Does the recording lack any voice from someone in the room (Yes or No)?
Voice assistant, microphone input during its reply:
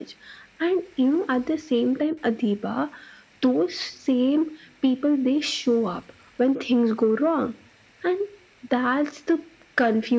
Yes